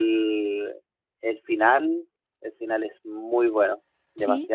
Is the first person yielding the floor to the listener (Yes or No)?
Yes